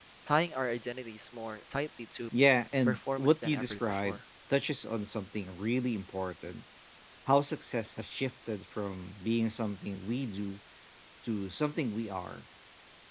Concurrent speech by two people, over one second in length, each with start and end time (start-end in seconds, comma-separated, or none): 2.8-4.2